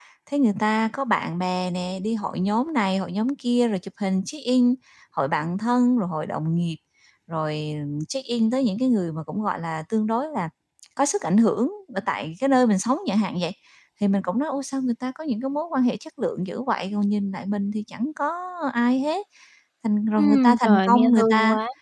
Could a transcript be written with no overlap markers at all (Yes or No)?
No